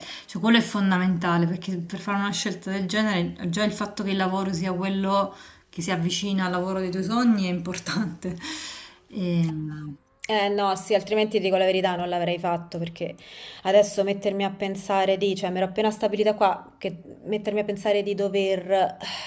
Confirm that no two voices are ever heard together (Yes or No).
Yes